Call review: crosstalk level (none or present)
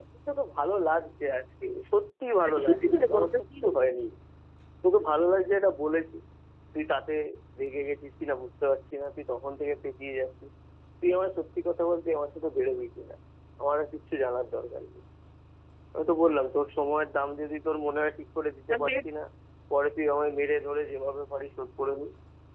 present